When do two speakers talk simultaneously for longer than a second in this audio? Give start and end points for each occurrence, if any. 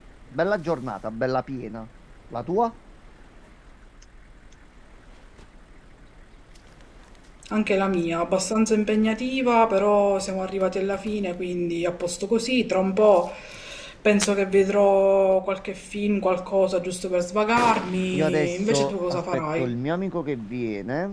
18.1-19.7

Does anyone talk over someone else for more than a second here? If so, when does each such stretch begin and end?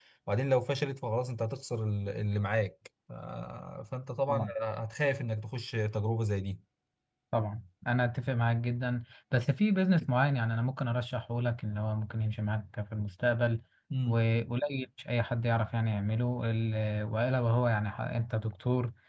none

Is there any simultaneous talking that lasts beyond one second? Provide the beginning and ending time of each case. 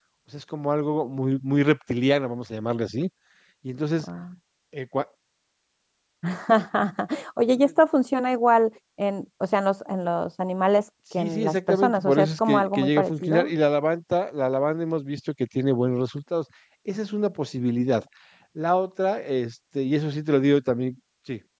11.2-13.5

